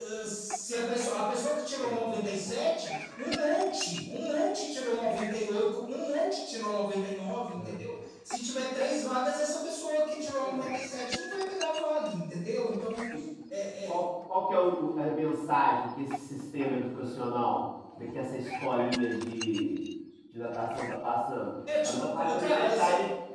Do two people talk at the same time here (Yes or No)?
Yes